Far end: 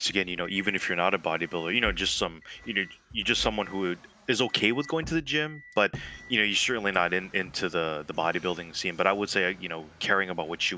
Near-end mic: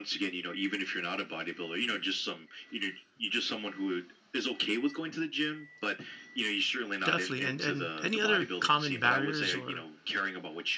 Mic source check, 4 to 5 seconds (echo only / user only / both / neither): echo only